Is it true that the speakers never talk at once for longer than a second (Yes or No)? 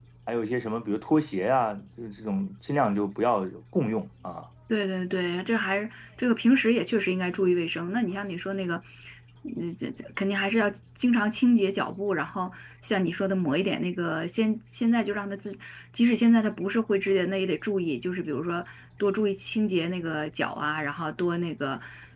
Yes